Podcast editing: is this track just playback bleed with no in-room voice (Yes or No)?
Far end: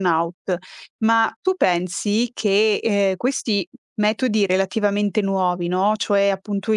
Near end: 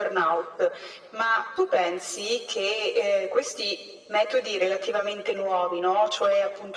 Yes